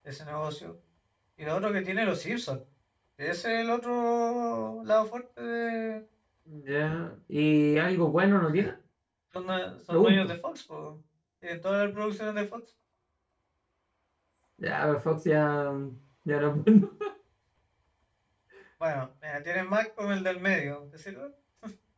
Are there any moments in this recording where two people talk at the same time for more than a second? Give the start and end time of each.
none

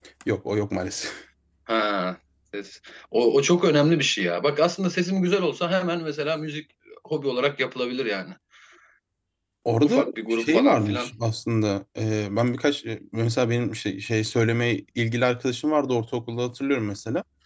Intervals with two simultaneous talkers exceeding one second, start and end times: 9.8-11.1

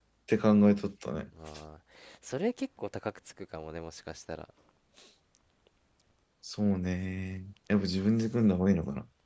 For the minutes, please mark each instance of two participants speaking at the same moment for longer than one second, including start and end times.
none

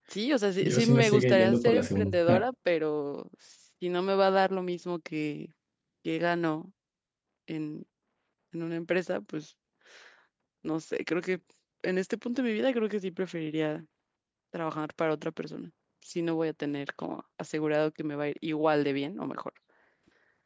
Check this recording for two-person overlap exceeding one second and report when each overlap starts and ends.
0.6-2.4

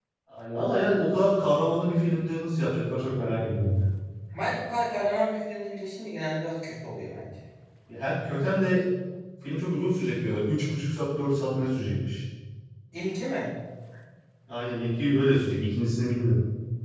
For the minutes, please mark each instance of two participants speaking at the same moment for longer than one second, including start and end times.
none

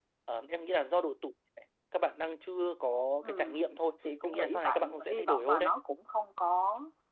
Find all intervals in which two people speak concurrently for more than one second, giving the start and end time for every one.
4.2-5.7

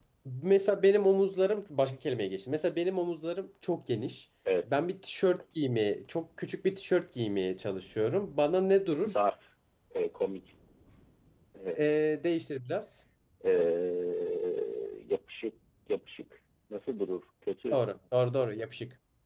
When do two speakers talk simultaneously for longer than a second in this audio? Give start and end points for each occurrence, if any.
none

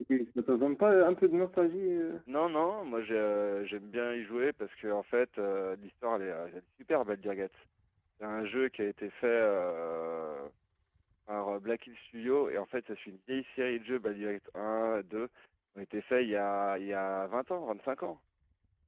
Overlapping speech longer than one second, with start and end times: none

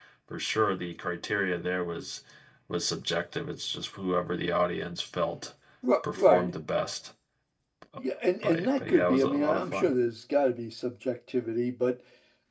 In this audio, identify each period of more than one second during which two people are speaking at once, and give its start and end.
8.4-9.9

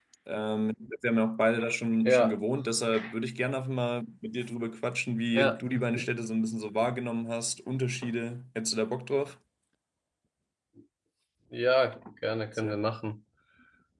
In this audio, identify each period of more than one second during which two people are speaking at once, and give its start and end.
none

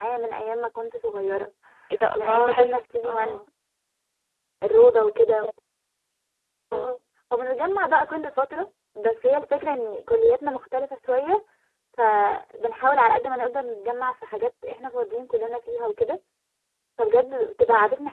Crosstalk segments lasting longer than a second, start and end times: 2.1-3.4

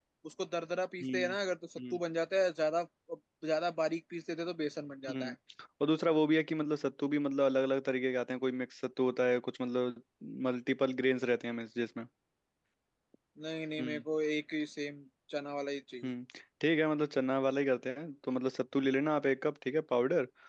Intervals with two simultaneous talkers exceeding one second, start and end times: none

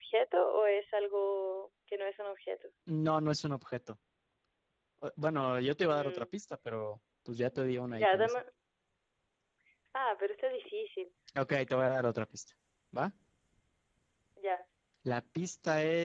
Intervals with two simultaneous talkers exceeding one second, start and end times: none

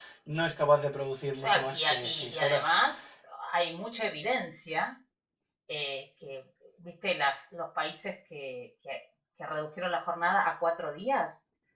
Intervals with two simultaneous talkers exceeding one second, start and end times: 1.3-2.6

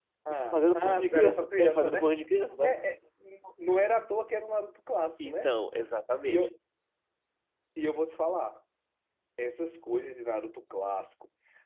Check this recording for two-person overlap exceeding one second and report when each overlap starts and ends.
0.5-2.1

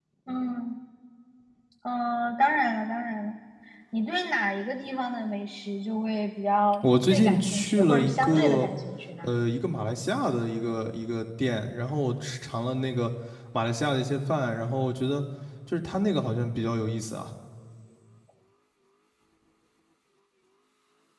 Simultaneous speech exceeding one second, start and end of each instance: 6.8-8.7

